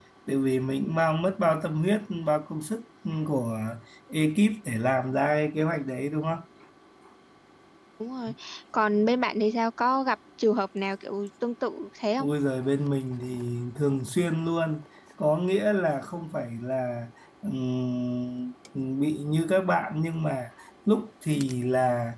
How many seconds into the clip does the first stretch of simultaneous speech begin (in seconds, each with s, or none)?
none